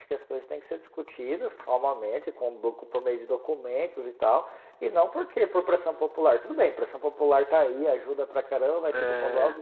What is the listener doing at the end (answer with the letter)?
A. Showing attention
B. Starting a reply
A